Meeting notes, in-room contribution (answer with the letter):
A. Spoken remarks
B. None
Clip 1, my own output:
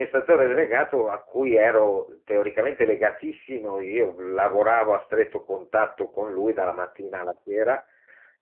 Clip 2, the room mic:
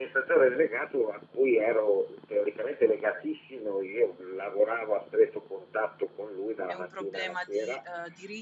A